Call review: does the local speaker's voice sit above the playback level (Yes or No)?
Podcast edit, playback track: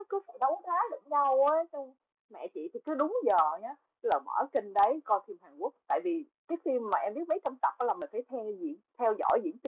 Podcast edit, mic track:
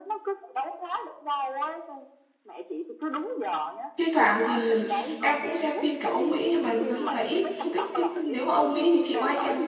Yes